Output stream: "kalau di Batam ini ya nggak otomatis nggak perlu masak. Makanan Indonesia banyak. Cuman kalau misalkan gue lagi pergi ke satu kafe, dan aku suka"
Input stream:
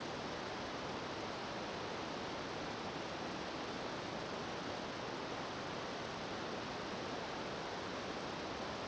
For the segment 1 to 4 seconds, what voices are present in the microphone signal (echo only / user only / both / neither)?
neither